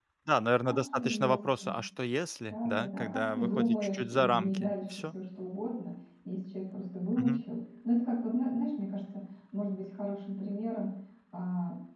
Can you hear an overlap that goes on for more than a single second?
Yes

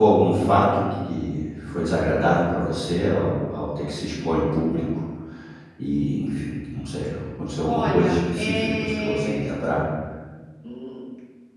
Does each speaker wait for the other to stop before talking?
No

